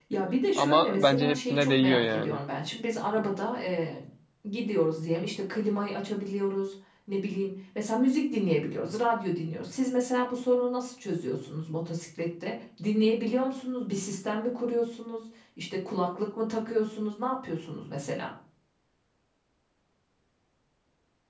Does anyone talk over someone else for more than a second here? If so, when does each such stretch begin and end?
0.6-2.4

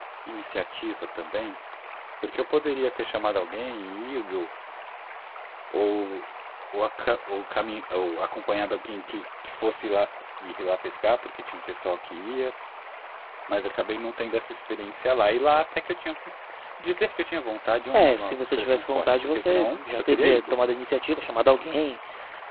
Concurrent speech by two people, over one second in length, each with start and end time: 17.9-20.6

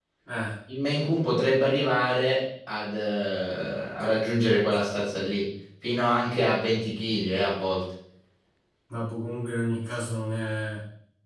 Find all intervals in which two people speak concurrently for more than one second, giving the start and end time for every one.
none

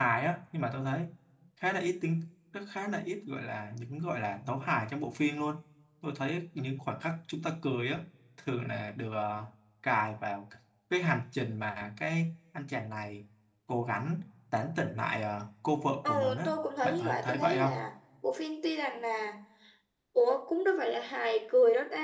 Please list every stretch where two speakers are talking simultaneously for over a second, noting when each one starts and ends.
16.0-17.9

